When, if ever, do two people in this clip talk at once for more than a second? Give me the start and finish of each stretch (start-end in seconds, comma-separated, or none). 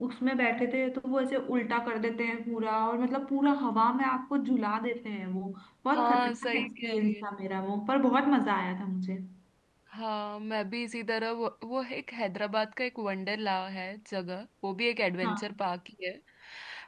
5.9-7.2